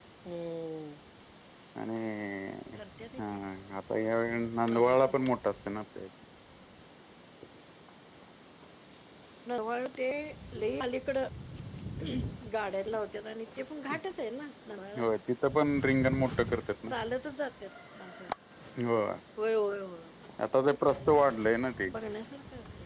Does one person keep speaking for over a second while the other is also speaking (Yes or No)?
No